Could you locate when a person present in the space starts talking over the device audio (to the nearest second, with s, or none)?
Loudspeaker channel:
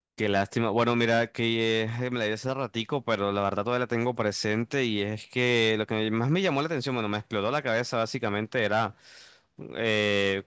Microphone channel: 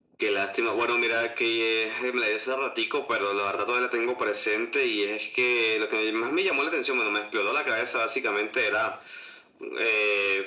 none